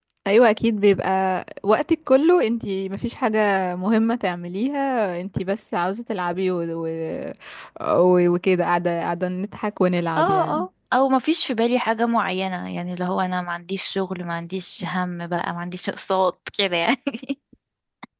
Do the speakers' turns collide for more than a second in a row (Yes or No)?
No